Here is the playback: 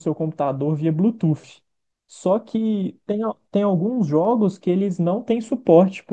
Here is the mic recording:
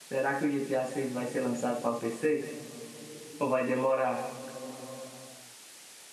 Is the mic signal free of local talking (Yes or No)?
No